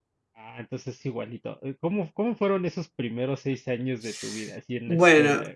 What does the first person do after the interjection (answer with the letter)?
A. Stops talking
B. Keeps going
A